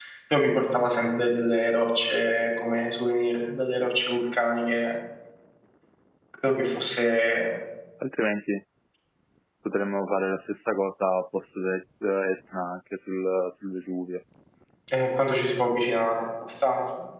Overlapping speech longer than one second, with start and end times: none

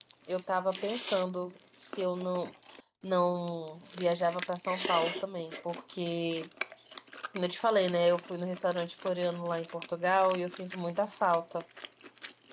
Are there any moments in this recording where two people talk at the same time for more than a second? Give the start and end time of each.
none

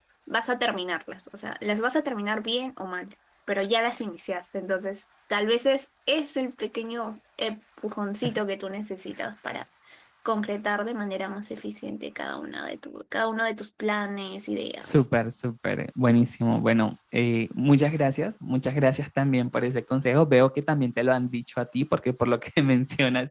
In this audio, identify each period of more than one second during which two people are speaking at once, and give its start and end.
none

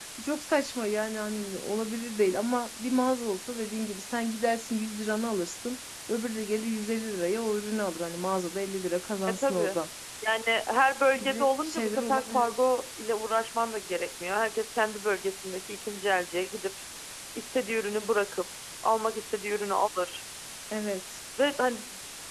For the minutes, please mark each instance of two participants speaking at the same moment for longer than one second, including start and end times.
11.2-12.5

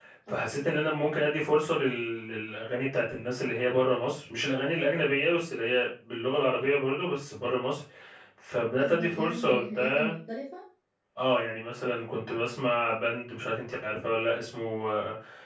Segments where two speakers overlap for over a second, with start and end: 8.8-10.1

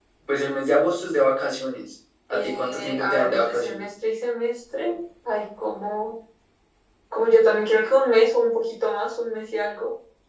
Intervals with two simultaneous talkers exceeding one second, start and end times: 2.3-3.9

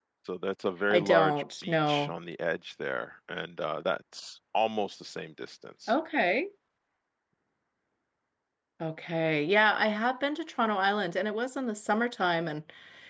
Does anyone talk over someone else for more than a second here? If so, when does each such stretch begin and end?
0.9-2.1

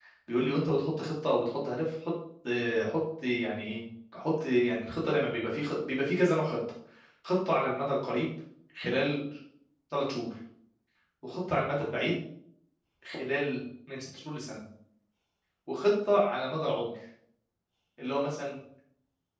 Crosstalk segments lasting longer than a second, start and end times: none

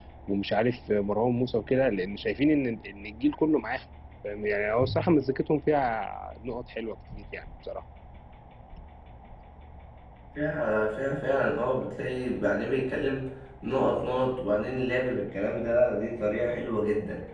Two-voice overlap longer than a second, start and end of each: none

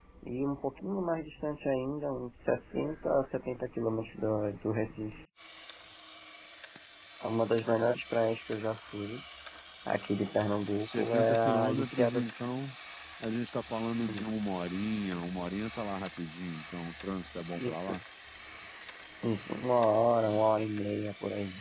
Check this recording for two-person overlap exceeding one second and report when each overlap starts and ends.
10.8-12.4

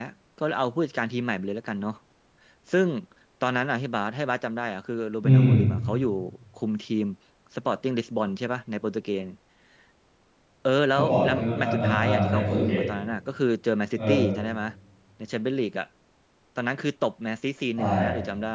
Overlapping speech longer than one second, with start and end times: 11.0-12.8

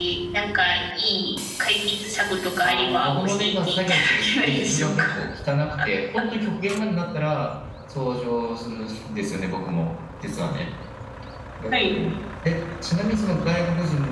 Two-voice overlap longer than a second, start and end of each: 2.6-5.2

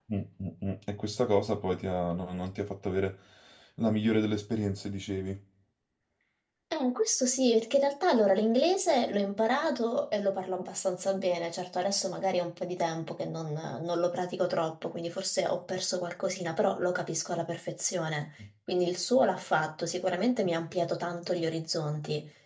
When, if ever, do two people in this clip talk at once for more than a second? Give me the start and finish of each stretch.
none

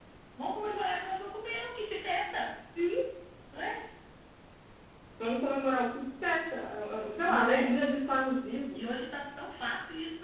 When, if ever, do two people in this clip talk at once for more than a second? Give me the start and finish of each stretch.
none

